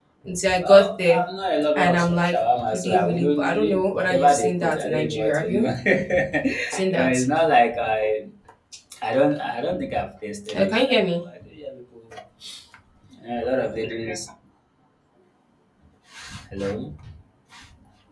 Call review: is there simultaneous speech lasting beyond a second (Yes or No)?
Yes